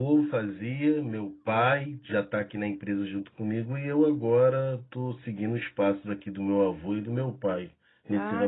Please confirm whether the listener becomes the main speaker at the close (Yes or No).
Yes